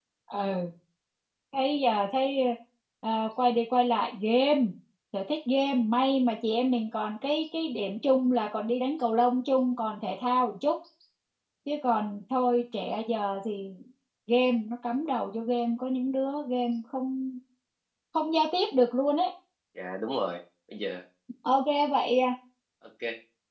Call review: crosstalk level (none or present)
none